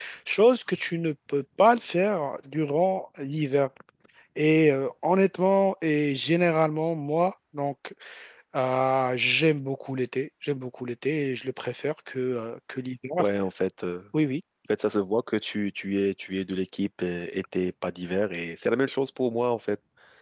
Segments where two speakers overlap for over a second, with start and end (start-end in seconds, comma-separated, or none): none